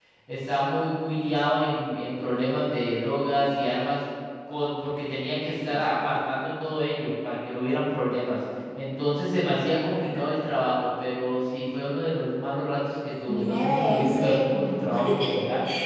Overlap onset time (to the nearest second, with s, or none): 13 s